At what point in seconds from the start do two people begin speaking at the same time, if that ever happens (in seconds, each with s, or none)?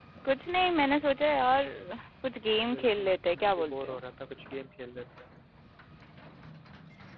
2.7 s